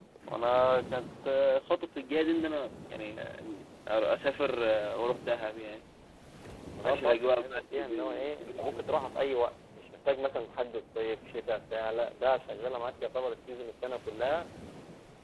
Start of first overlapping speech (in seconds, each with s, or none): 6.8 s